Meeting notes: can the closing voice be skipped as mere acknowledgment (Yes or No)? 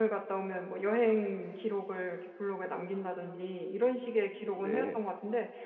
Yes